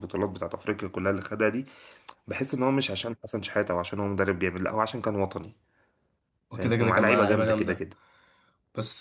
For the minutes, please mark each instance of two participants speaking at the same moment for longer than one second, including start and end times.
6.6-7.8

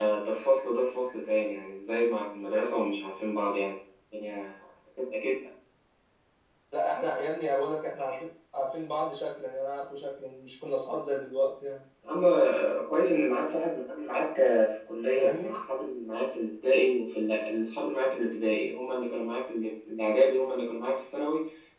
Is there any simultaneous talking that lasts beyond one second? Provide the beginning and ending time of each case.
none

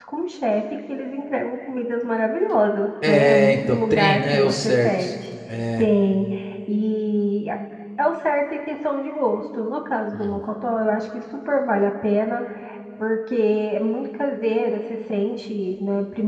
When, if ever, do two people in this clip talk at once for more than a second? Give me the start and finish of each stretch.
3.1-5.1

